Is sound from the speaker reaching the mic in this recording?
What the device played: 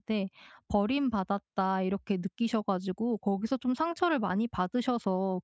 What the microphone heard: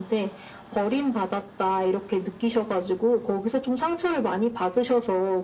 Yes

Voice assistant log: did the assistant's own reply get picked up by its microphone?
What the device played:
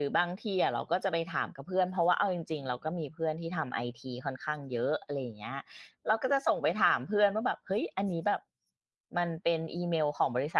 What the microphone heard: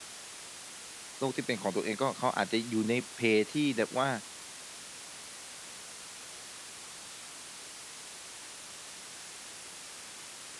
No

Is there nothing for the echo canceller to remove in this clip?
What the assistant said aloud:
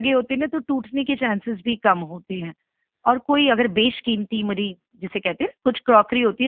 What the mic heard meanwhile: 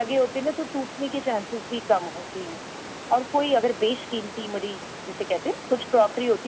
No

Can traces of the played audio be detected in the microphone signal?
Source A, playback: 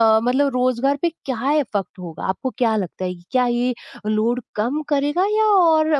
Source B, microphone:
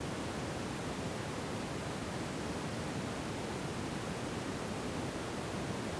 No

